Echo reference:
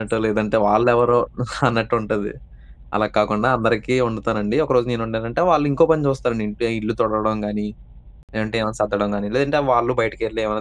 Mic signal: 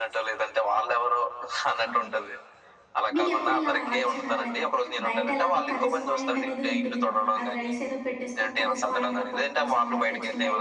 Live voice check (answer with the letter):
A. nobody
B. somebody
B